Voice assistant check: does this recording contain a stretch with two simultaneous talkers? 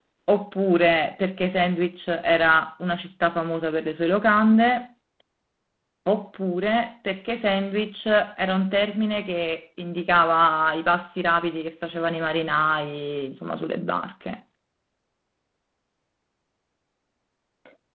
No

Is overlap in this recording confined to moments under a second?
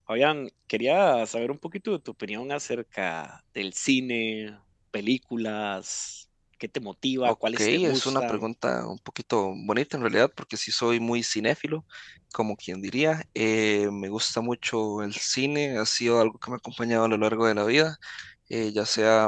No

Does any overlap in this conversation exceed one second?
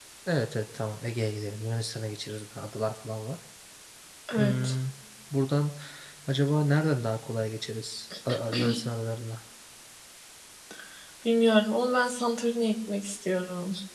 No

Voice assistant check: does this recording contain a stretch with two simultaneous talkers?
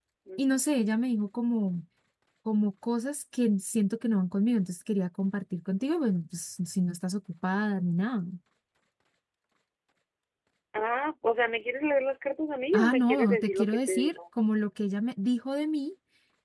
Yes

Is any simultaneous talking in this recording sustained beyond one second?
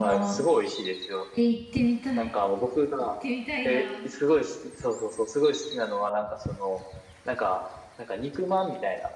No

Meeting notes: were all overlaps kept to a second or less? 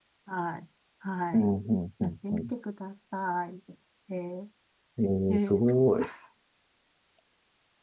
Yes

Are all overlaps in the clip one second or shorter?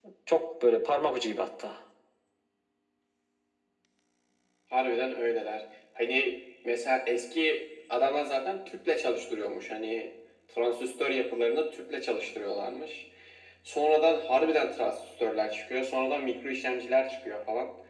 Yes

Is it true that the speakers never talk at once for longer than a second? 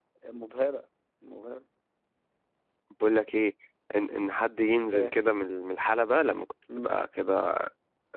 Yes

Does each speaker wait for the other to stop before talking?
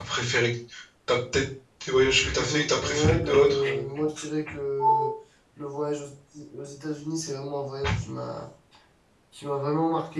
No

